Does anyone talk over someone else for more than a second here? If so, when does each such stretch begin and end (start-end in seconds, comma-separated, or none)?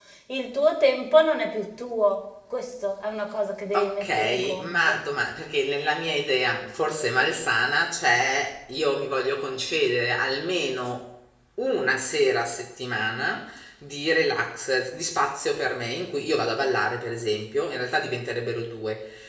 3.7-5.0